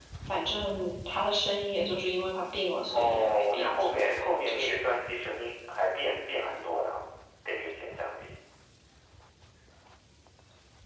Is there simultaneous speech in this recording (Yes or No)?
Yes